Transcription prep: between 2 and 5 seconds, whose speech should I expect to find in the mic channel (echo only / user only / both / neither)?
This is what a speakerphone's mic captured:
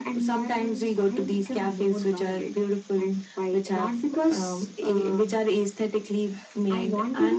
echo only